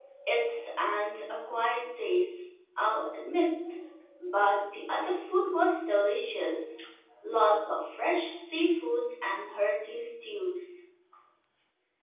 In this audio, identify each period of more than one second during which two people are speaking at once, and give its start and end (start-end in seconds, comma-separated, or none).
none